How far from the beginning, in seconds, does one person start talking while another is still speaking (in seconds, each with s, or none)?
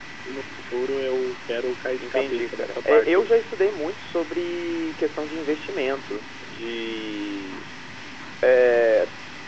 2.0 s